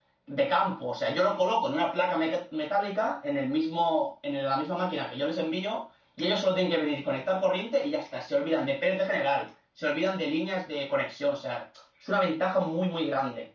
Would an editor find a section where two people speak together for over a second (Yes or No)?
No